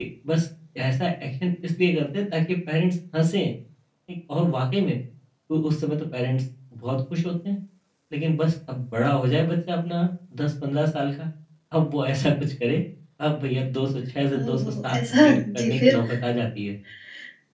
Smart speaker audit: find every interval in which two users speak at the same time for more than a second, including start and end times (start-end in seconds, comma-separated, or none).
14.4-16.0